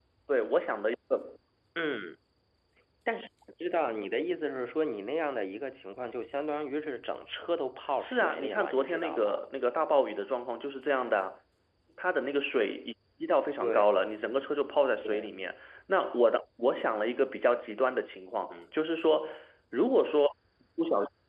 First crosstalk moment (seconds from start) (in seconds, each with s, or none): 8.0 s